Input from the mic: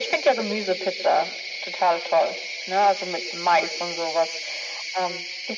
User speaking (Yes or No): No